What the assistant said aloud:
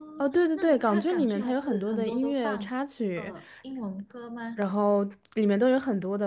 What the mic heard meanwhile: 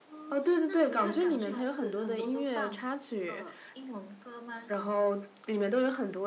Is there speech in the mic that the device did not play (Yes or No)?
No